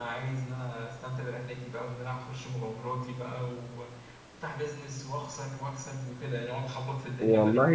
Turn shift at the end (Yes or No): Yes